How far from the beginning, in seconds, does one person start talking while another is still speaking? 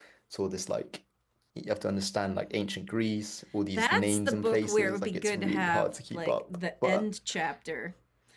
3.8 s

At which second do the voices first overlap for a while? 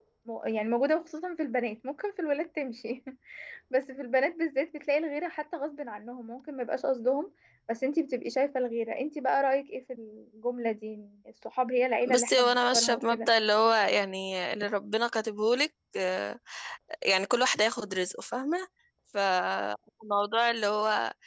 12.0 s

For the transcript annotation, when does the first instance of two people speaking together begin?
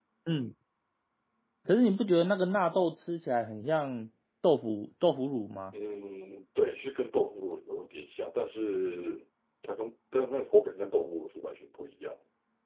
none

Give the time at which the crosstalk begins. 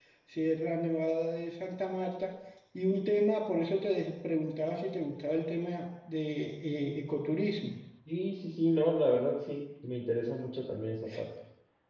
none

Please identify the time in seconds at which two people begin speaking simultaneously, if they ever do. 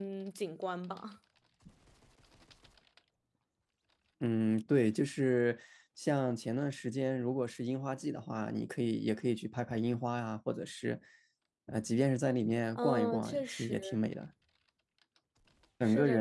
12.8 s

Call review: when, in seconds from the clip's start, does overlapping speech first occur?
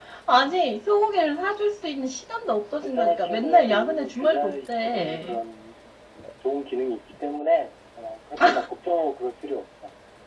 2.8 s

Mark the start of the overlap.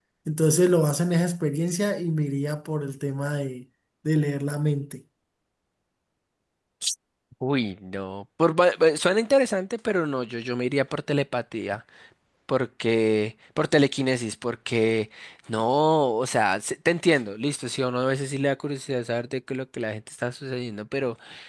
none

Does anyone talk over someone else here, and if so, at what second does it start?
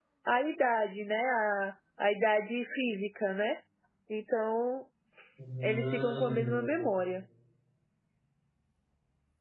5.6 s

